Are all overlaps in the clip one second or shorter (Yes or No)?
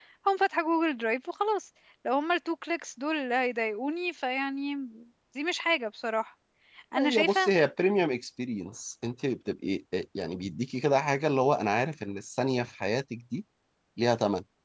Yes